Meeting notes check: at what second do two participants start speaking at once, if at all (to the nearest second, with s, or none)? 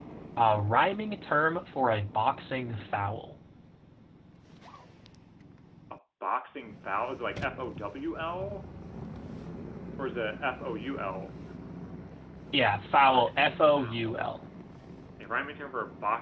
13 s